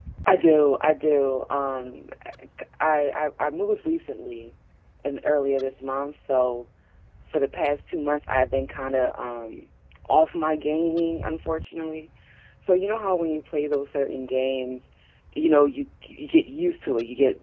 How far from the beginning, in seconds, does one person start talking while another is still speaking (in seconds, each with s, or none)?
none